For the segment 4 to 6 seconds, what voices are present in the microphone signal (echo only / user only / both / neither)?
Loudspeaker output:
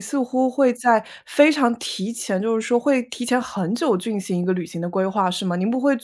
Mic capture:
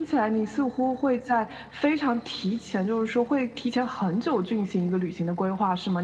echo only